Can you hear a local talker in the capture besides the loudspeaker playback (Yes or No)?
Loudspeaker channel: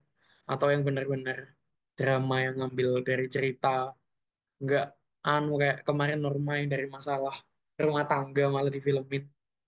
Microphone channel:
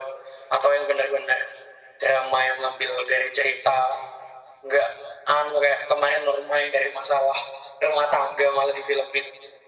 No